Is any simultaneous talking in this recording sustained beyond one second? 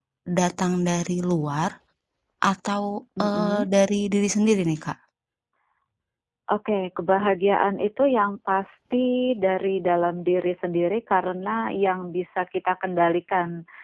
No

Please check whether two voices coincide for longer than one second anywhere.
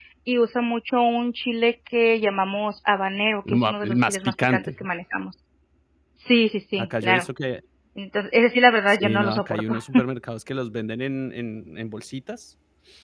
Yes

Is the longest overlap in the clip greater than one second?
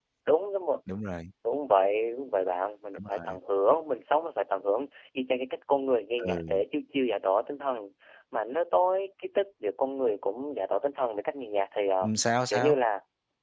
No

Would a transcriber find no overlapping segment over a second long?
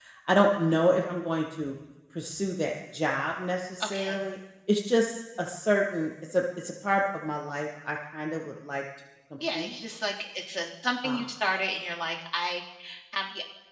Yes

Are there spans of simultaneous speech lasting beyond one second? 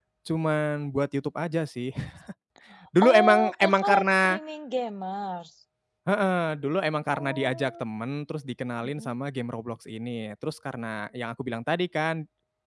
Yes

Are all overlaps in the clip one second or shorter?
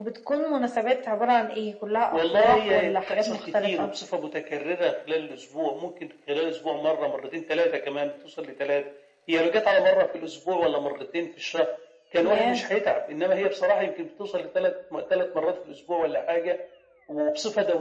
No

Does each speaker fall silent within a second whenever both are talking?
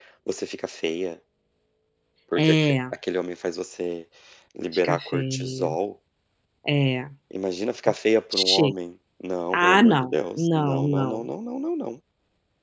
No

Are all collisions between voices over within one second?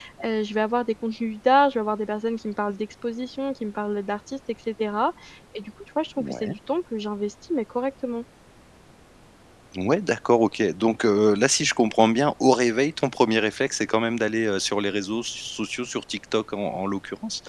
Yes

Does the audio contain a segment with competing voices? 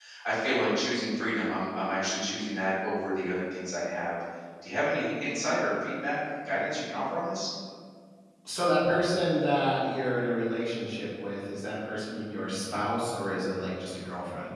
No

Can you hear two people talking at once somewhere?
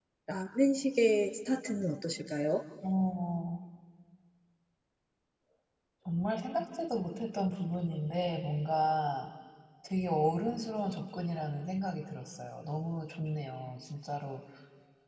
No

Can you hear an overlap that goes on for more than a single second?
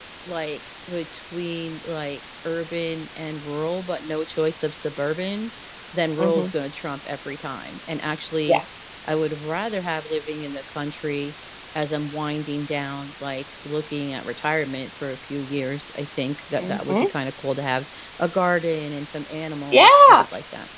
No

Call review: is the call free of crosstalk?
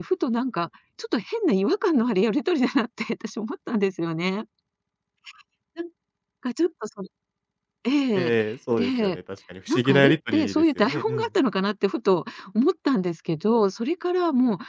No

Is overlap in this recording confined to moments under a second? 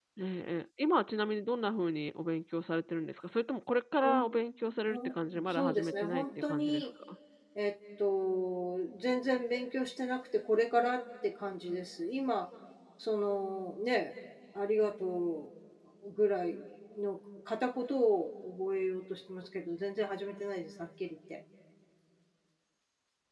No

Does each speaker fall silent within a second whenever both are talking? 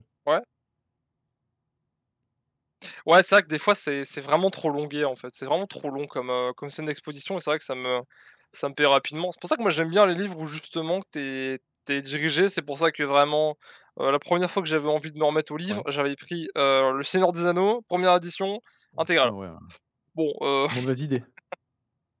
Yes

